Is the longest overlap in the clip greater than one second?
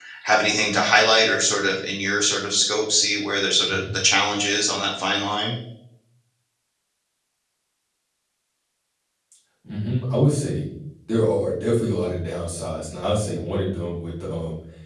No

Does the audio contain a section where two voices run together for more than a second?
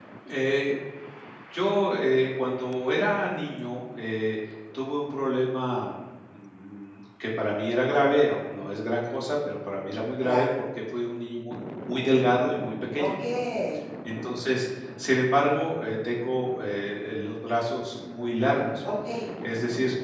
No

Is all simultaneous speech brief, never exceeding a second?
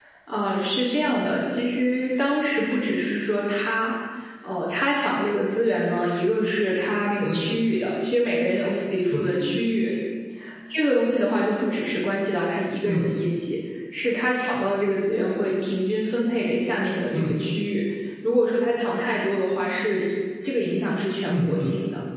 Yes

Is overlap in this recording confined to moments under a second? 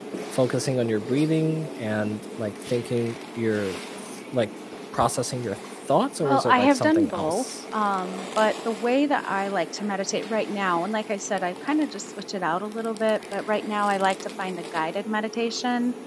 No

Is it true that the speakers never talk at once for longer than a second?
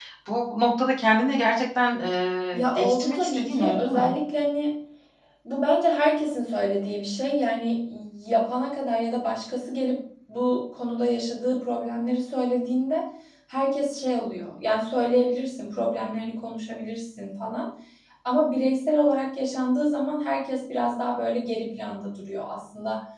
No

